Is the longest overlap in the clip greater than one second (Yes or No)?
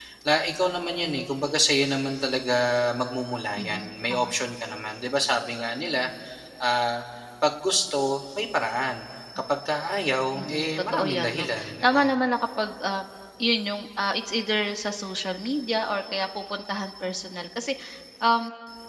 Yes